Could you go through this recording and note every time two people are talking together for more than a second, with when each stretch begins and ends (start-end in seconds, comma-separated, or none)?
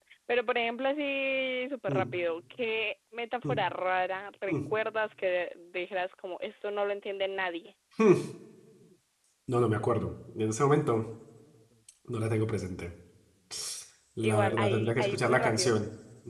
14.2-15.7